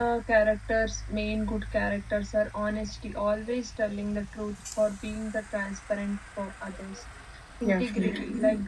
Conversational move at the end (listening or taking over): listening